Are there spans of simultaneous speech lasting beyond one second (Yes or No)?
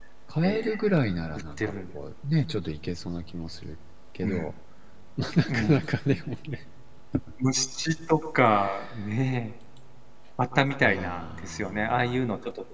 Yes